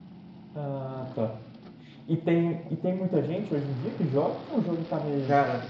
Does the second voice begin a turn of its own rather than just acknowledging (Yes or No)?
Yes